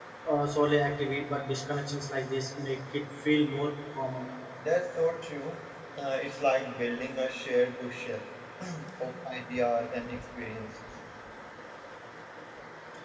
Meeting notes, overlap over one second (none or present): none